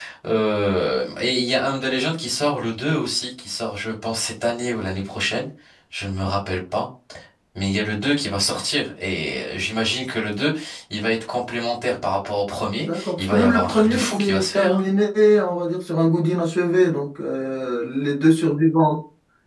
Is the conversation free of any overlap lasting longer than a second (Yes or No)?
No